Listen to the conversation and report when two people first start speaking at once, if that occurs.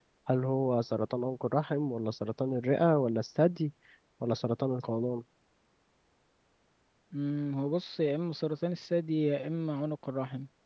none

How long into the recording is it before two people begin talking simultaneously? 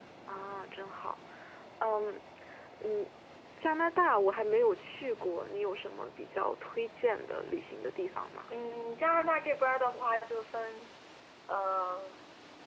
none

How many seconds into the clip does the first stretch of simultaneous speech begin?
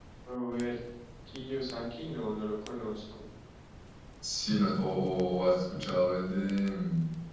none

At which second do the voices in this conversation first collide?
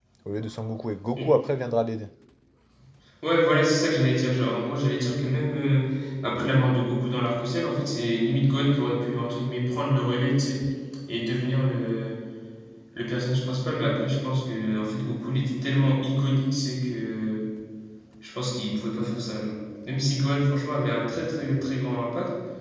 none

